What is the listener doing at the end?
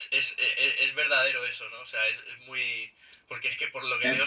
listening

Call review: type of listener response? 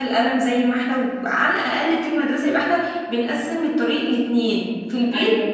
listening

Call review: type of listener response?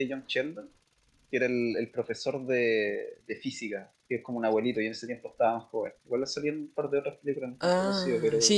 taking over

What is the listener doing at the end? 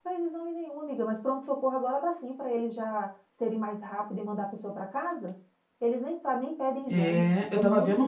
taking over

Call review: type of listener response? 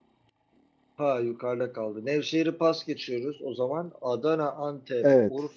listening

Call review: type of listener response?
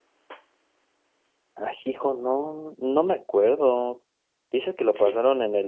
listening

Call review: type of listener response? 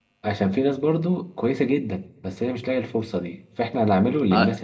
listening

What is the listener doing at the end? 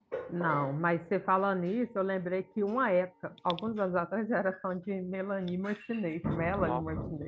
taking over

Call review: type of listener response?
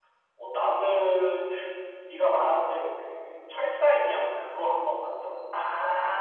taking over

